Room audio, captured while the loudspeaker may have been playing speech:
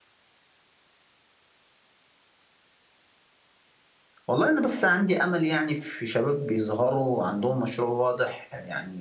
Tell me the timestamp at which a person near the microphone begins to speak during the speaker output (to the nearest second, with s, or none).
4 s